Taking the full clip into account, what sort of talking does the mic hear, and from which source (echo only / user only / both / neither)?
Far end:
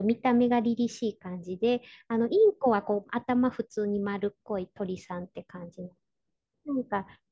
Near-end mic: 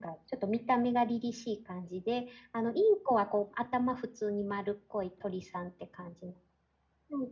echo only